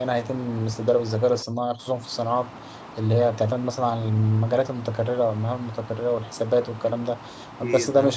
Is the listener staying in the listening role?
Yes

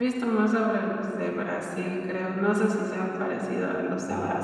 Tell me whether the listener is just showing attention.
No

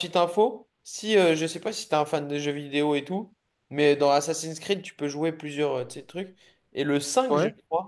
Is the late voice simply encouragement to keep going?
Yes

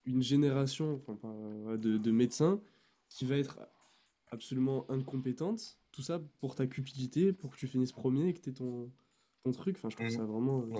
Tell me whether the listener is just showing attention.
No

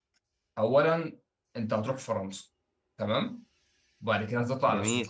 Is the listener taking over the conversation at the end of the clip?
No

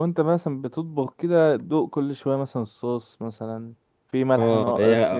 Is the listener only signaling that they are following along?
No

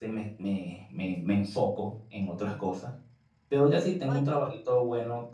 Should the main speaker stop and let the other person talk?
No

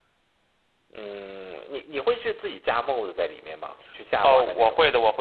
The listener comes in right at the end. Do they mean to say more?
Yes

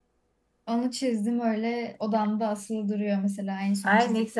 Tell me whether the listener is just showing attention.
No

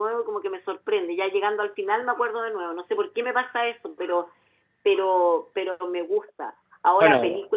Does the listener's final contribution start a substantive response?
No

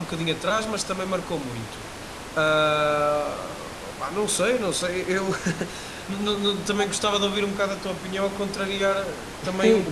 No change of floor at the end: No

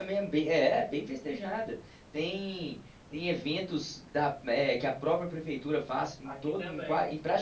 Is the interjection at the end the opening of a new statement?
No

